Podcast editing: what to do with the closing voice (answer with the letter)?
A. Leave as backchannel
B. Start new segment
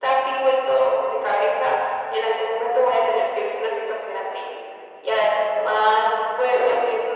A